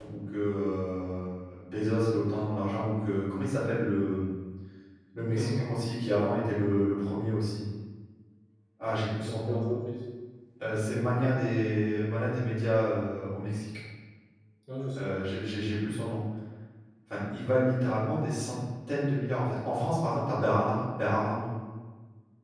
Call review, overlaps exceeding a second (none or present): none